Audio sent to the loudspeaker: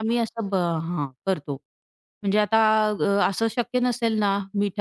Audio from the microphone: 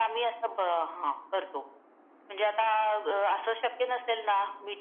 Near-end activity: none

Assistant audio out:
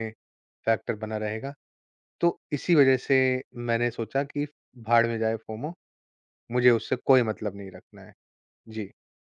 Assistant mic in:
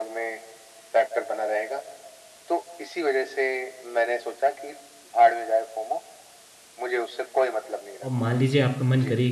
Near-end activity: present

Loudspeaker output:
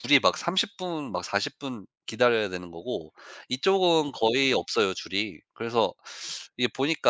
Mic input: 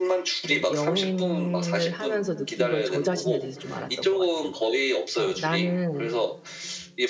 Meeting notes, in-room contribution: present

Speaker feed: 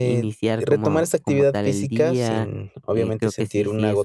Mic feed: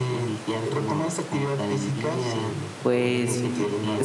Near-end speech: present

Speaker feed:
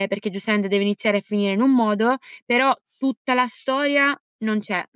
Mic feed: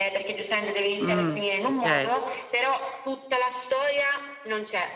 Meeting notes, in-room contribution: present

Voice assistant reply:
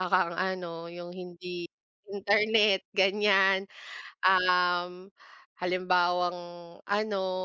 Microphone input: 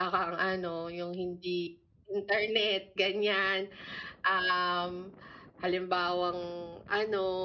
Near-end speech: none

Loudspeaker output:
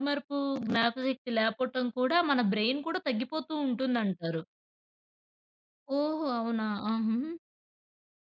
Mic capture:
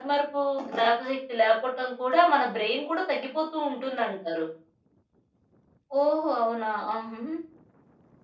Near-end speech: none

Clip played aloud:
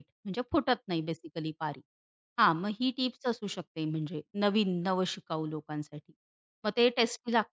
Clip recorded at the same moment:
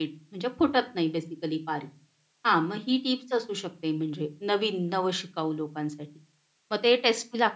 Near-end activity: none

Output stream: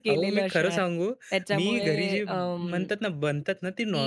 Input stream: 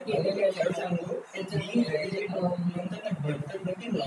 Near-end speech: none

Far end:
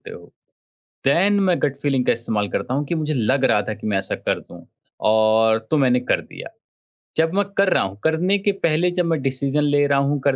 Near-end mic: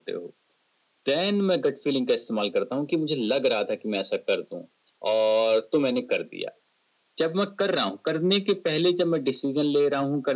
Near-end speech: none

